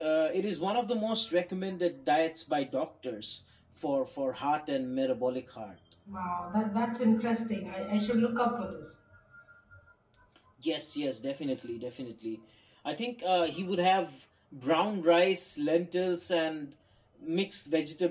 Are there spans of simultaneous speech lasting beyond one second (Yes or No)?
No